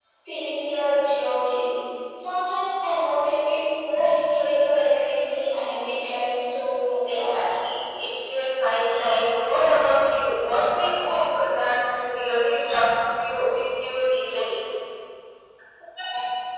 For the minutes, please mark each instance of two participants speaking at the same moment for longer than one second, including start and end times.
none

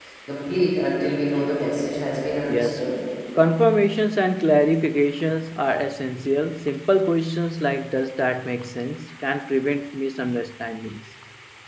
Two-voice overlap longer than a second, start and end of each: none

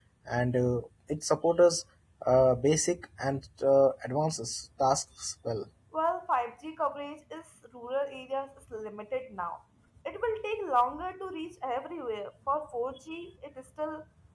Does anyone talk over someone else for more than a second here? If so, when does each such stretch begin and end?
none

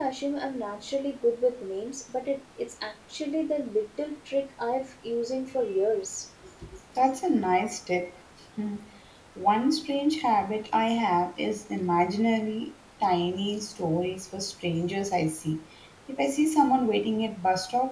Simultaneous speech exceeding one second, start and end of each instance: none

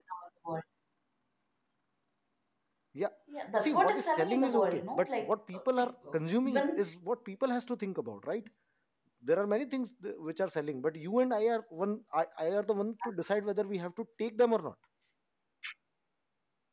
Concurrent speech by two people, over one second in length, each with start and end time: 3.6-6.2

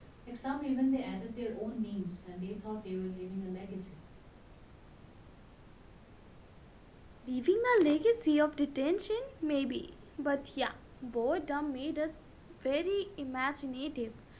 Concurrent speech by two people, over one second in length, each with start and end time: none

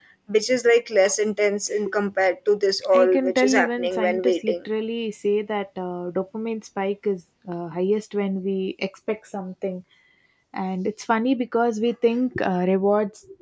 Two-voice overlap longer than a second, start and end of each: 2.9-4.5

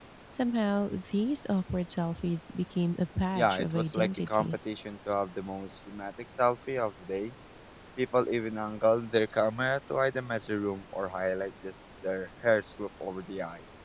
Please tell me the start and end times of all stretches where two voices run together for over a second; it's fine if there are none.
3.4-4.6

